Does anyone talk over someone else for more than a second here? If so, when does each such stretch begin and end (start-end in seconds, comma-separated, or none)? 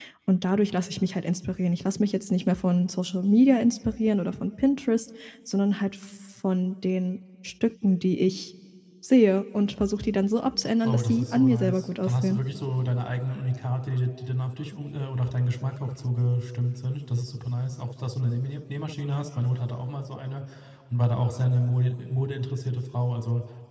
10.9-12.4